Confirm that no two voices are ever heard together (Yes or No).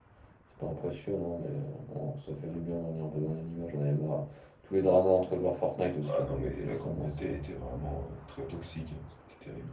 No